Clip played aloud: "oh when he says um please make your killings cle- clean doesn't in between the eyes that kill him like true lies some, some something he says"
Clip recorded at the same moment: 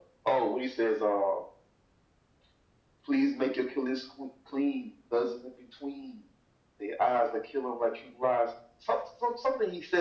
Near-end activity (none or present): none